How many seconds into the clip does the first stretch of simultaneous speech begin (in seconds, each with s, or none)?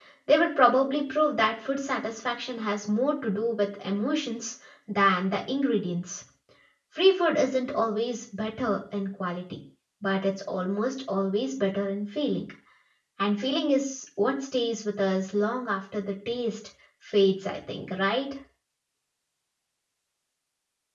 none